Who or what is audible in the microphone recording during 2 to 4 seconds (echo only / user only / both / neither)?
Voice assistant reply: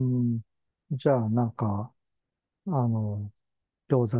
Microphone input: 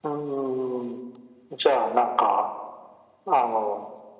echo only